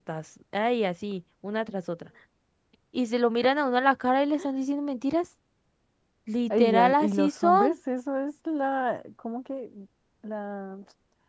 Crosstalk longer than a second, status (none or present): present